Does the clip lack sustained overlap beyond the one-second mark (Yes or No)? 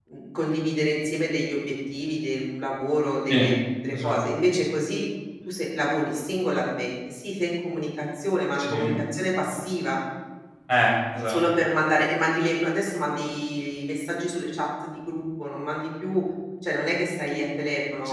Yes